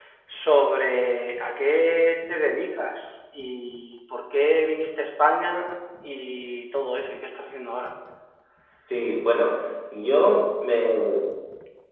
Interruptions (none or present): none